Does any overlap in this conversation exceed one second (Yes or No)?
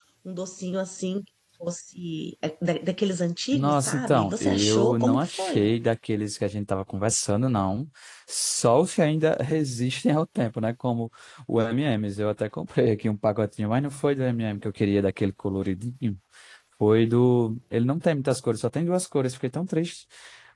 Yes